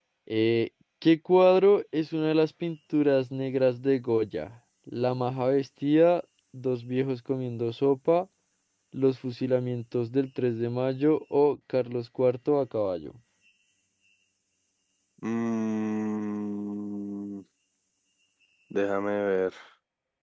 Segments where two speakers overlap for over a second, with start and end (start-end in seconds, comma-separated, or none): none